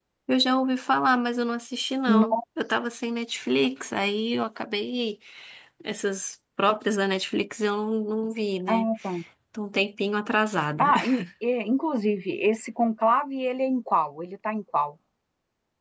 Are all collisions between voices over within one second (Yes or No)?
Yes